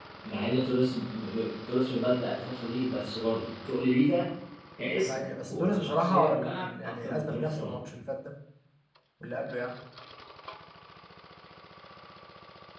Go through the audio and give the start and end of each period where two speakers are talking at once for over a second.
4.8-7.9

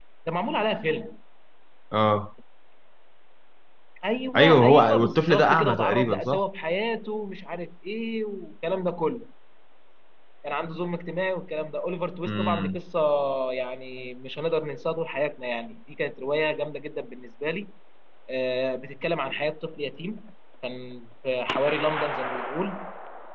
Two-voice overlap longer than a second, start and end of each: 4.4-6.4

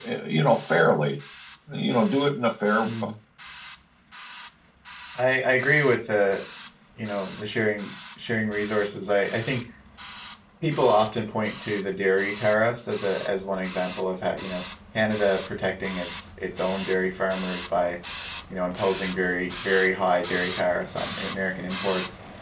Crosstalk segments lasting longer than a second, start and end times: none

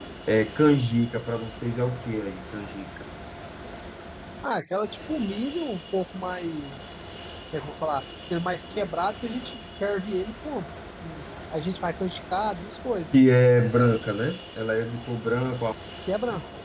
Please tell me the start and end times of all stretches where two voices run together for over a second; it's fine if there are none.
none

